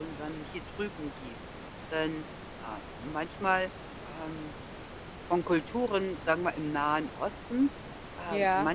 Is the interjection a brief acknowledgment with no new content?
Yes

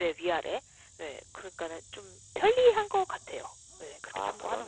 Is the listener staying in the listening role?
No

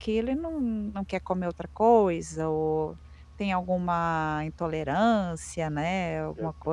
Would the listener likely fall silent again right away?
No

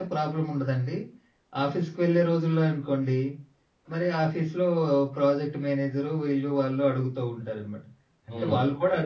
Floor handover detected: No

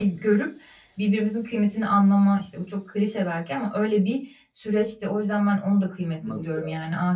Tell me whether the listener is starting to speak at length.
No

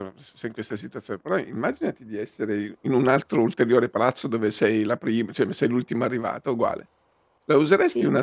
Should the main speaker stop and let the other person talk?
No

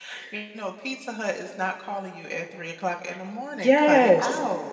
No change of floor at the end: No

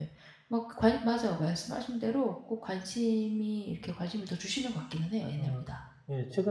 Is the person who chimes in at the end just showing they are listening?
No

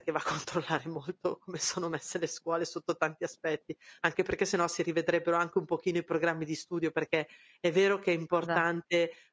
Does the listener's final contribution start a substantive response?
No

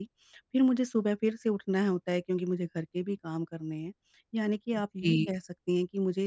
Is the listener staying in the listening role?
Yes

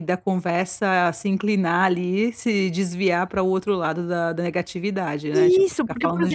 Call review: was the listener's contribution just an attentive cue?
No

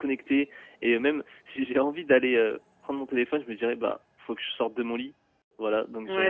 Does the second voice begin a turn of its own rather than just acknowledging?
Yes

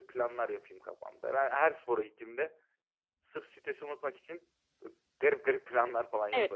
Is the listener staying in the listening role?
No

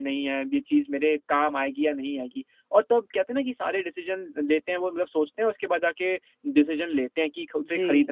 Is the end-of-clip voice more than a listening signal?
No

